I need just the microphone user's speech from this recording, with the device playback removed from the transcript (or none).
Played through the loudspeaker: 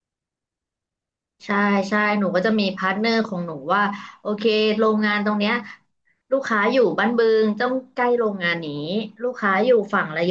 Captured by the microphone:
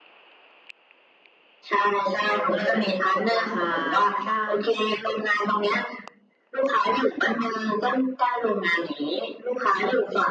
เออเราก็เลยแบบกดราคาได้